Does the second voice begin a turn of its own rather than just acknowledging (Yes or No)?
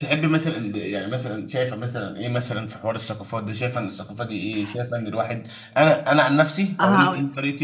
No